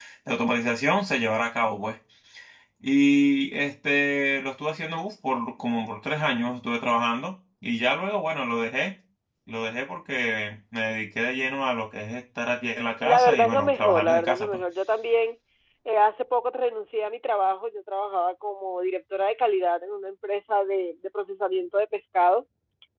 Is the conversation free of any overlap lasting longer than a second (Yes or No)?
No